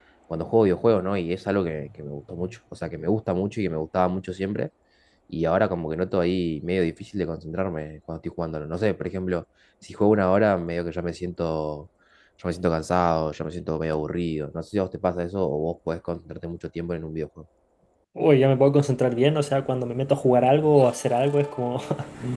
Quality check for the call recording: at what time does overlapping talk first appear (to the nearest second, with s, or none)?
none